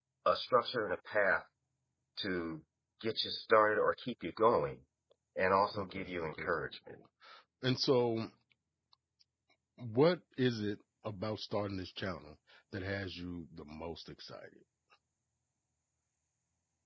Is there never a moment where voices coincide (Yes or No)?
No